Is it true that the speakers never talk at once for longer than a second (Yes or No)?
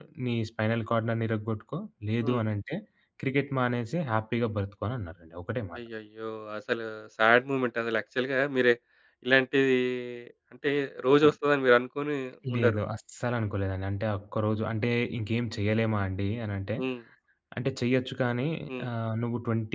Yes